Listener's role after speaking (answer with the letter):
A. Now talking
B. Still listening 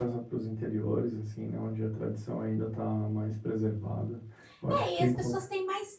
A